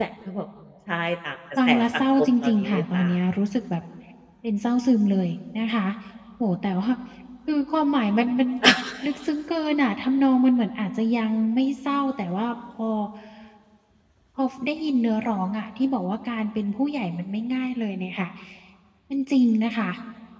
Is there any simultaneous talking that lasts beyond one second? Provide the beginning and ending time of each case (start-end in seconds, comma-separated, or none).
1.7-3.1